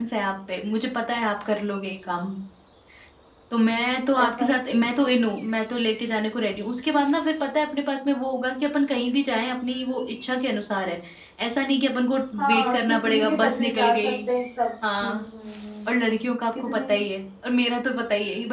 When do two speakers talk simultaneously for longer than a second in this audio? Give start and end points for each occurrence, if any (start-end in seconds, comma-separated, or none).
12.4-14.2